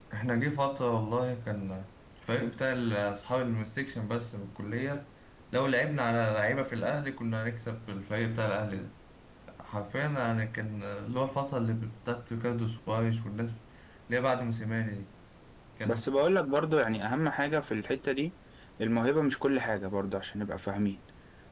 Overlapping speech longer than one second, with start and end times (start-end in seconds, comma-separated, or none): none